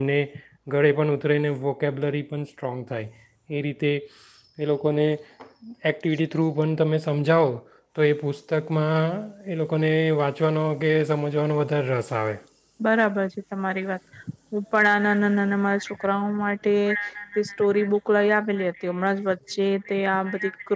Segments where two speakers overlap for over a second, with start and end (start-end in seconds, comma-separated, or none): none